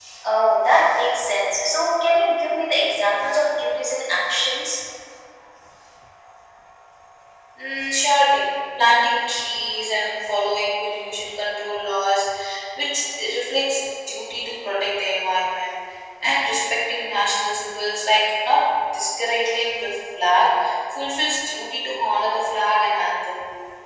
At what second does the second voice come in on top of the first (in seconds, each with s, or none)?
none